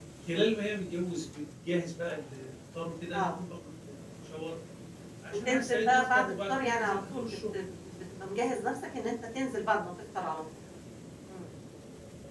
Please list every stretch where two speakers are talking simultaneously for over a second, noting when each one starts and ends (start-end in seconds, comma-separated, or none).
5.5-7.5